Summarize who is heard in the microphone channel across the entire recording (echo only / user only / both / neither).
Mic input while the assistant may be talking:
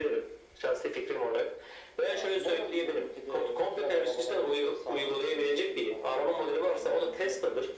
echo only